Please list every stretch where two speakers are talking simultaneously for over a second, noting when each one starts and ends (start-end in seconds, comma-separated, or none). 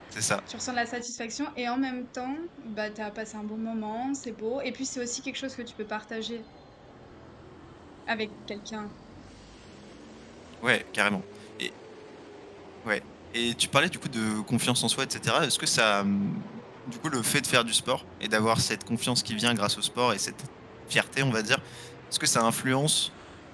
none